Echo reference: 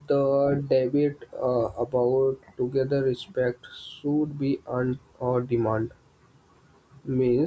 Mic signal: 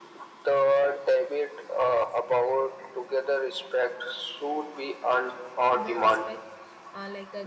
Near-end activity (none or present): present